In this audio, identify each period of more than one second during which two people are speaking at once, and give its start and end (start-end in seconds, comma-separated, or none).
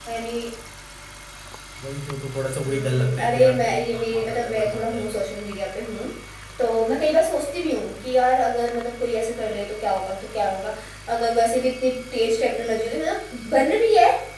2.7-5.1